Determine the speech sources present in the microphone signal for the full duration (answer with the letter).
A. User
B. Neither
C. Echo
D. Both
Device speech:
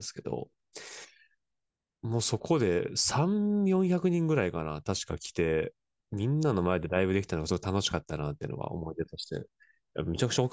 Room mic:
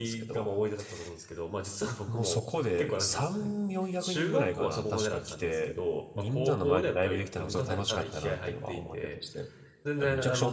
D